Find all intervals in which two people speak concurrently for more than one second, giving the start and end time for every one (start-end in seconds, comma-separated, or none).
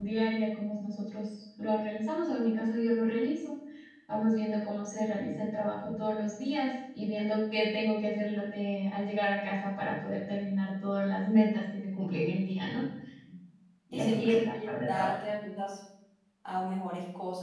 13.9-15.2